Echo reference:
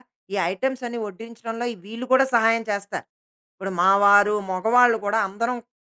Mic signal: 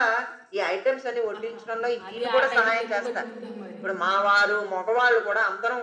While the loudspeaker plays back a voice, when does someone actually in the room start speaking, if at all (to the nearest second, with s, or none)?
1 s